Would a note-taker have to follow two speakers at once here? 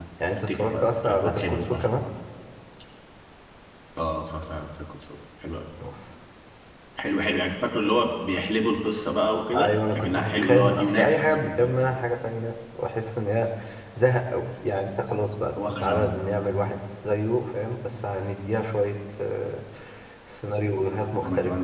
Yes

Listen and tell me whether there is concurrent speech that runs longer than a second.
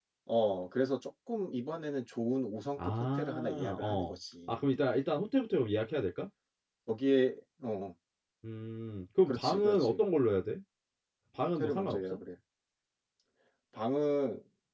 Yes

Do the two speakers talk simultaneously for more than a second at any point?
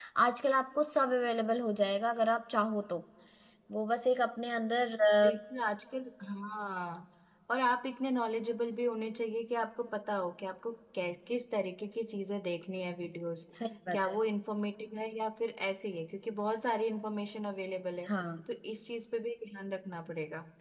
No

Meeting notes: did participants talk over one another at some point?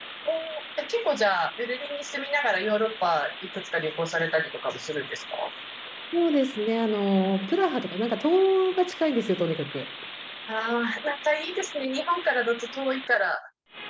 No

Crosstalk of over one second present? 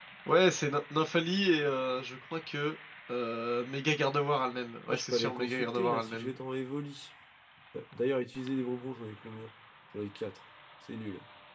Yes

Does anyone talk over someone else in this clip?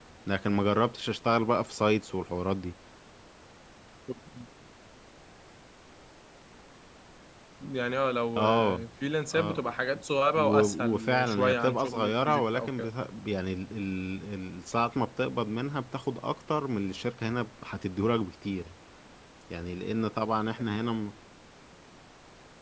Yes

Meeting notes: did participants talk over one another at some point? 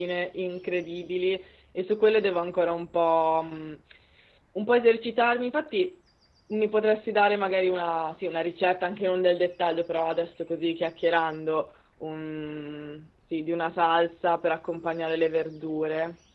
No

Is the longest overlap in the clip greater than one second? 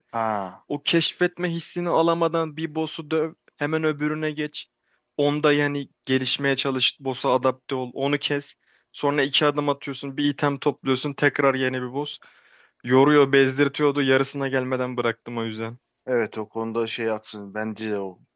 No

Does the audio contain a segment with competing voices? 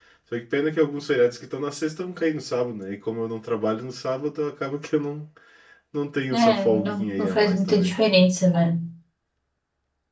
Yes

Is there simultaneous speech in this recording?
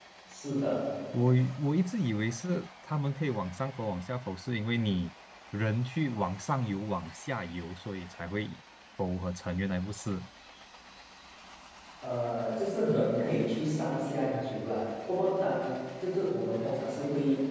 No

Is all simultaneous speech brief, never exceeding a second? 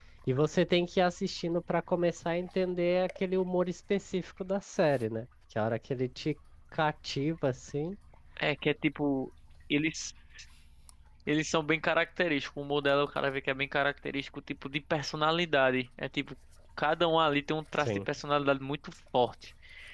Yes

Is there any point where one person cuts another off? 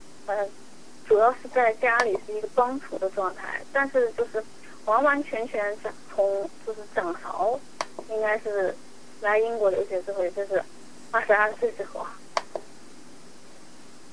No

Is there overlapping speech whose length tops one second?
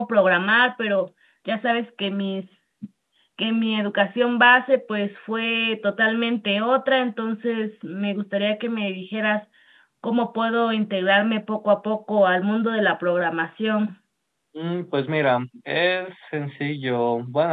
No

